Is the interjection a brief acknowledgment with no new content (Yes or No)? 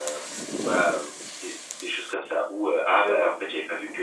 Yes